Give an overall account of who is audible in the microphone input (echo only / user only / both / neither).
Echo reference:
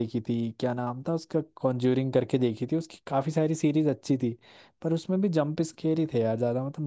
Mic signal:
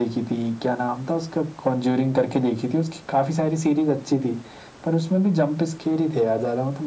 echo only